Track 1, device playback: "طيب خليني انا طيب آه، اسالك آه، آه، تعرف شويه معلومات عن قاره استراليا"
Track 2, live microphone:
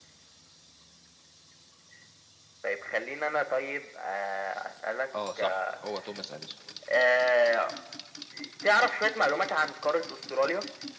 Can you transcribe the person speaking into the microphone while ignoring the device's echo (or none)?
اه صح هو توماس اديسون